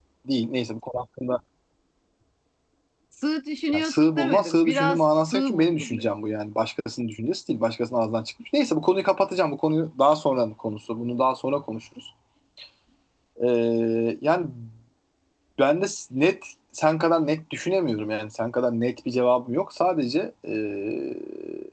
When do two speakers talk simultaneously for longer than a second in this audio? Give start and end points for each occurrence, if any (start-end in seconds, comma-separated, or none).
3.7-6.1